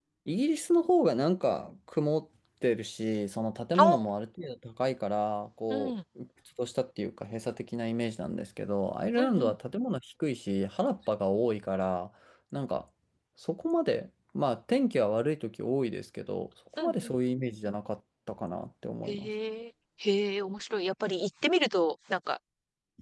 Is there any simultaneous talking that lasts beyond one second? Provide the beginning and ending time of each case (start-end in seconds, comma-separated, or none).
none